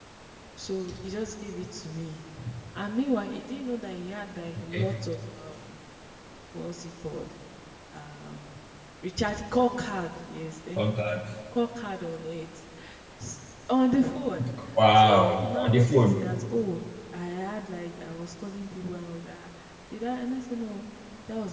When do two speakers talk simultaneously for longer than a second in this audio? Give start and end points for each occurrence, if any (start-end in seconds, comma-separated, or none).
14.9-16.3